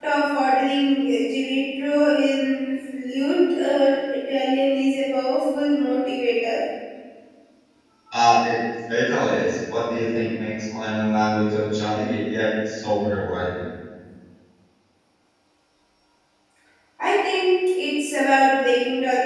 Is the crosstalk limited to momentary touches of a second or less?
Yes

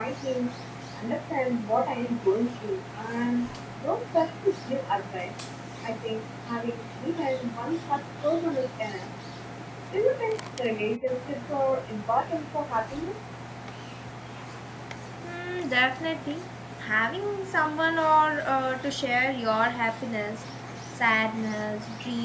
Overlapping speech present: No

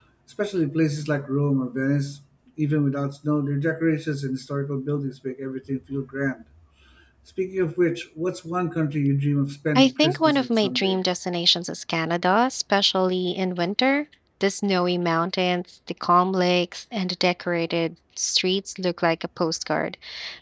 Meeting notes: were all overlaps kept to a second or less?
No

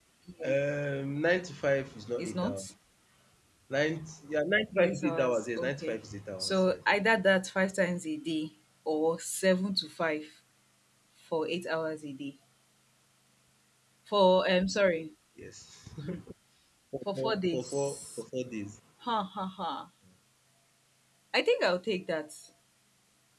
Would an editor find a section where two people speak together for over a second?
Yes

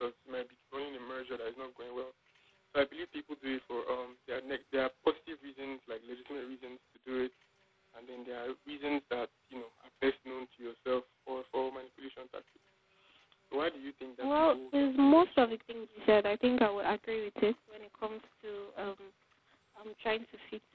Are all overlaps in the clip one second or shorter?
No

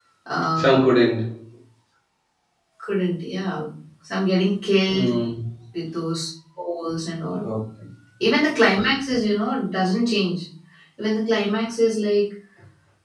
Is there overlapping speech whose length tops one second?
No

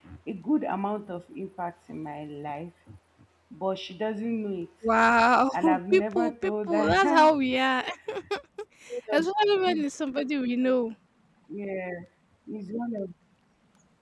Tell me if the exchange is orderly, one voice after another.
No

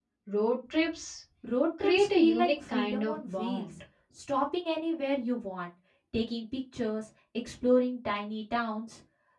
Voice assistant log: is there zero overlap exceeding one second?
No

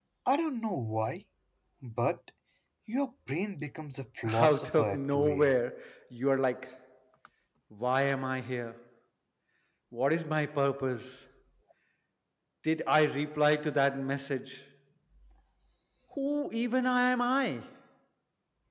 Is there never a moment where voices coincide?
No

